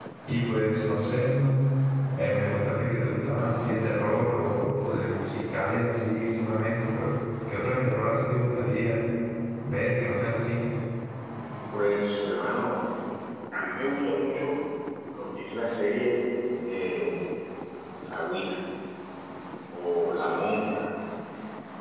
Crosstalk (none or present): none